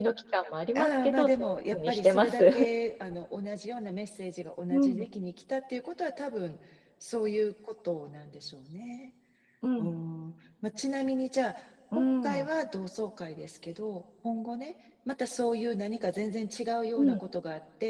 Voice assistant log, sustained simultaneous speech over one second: present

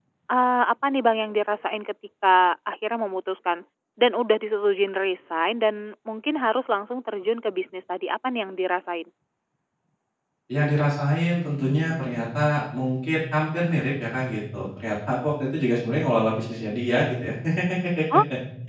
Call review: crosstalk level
none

